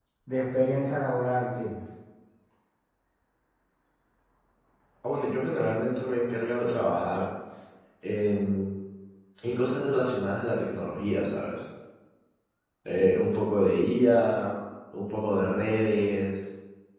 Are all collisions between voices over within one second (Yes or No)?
Yes